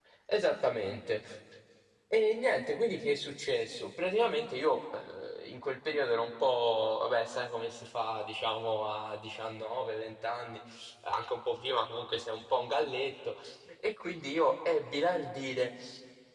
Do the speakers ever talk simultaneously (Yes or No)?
No